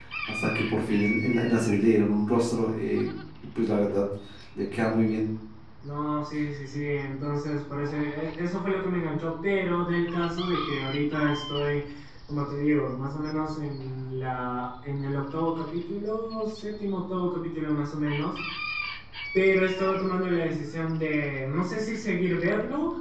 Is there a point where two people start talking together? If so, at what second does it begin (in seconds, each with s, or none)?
none